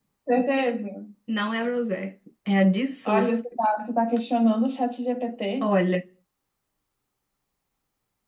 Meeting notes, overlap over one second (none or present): none